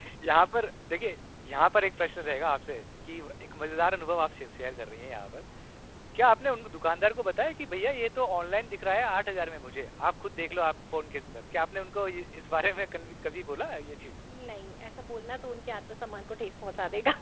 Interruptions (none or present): none